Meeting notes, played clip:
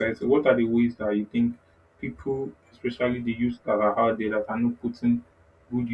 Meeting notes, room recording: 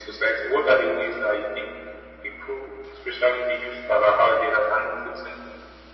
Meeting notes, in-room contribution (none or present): none